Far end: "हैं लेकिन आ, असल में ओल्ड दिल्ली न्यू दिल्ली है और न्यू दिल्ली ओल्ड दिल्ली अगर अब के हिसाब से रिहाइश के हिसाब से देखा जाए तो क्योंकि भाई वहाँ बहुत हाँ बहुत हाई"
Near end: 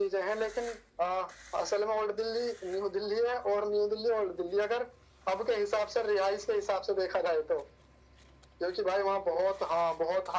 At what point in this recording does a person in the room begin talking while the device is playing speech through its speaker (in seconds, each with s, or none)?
none